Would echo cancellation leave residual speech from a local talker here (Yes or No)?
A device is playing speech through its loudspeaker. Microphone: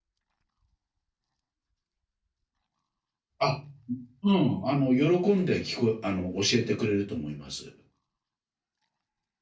Yes